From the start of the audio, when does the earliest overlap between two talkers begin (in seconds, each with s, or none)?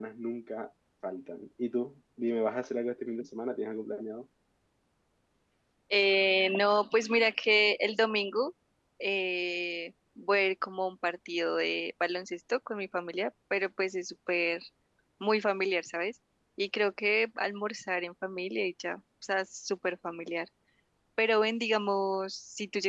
none